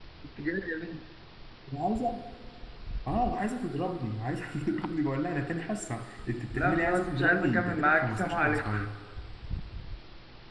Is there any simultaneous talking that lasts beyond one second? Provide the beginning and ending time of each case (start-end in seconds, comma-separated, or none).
6.5-8.7